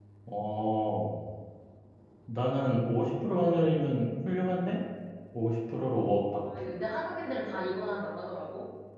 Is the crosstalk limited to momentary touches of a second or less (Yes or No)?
Yes